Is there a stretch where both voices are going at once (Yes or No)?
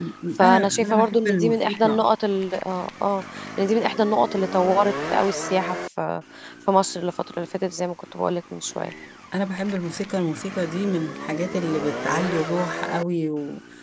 Yes